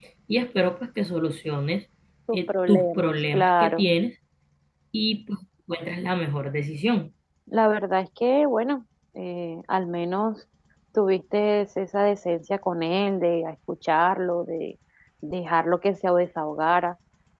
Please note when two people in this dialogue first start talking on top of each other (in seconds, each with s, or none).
2.3 s